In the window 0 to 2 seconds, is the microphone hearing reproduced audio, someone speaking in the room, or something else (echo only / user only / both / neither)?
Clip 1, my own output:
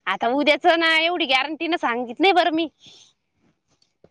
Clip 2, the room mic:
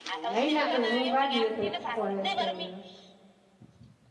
both